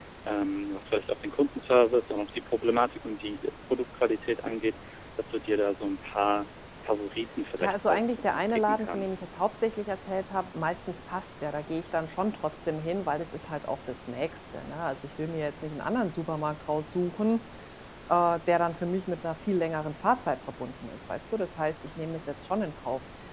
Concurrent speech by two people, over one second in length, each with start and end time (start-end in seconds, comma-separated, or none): 7.6-9.2